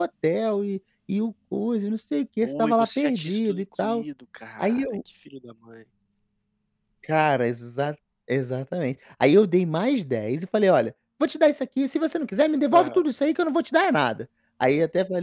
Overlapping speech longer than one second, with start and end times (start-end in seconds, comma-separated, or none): 2.4-4.0